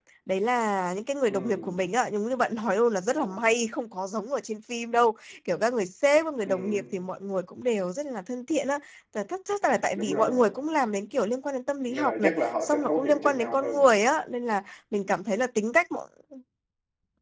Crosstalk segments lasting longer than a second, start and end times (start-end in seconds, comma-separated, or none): 11.9-13.9